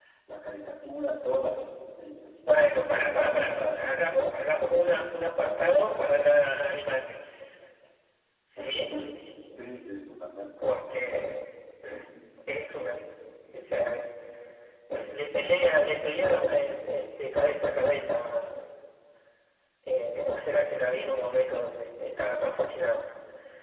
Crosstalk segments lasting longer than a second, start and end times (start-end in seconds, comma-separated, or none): 2.5-3.9